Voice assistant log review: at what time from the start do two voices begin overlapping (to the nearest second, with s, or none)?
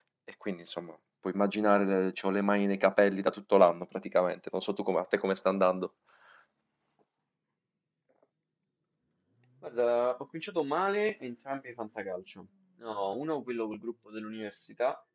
none